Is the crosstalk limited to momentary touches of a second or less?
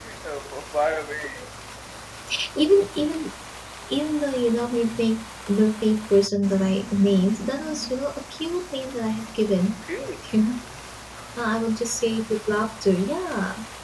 Yes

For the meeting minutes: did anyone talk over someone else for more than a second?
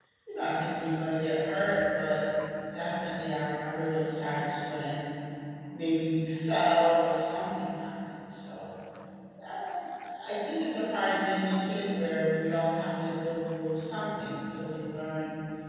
No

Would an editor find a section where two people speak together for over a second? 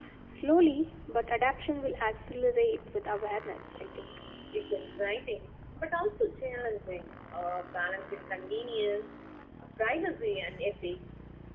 No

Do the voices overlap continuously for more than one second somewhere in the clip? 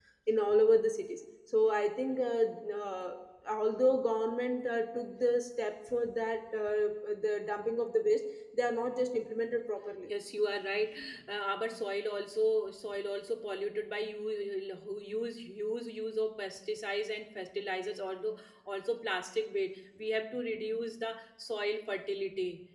No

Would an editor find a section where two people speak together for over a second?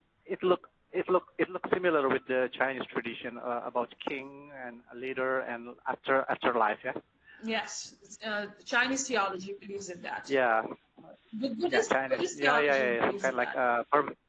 Yes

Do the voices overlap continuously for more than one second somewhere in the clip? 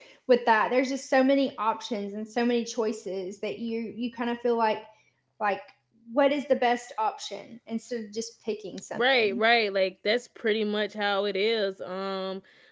No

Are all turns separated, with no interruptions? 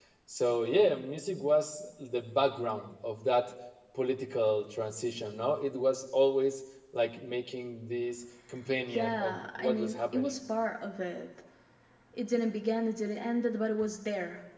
No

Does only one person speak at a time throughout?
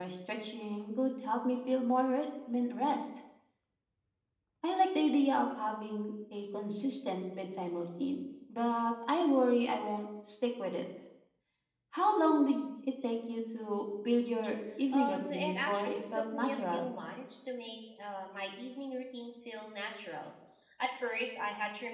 No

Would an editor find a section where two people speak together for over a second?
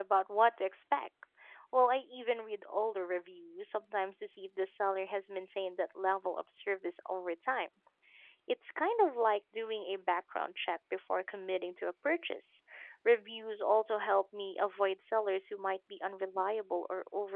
No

